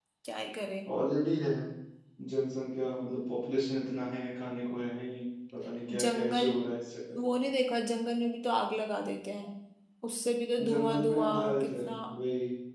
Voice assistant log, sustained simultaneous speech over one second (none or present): present